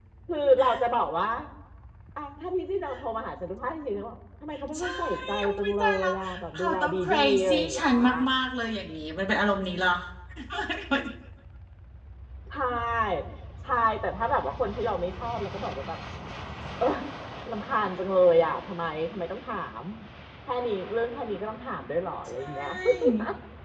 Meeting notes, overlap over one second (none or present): present